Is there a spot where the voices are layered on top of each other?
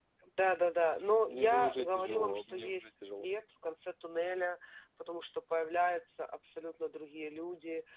Yes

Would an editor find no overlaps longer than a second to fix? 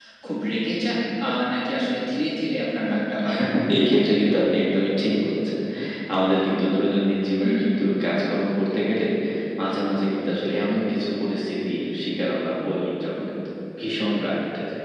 Yes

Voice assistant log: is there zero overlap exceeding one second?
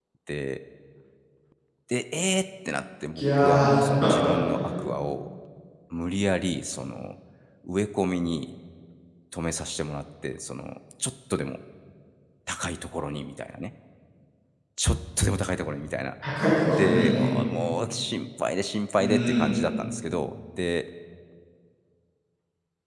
No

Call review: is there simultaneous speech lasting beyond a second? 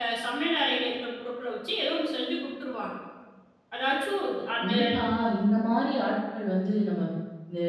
No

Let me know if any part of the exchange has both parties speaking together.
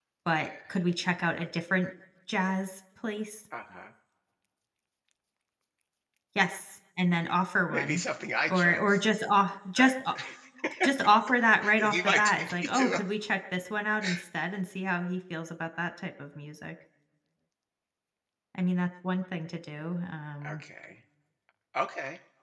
Yes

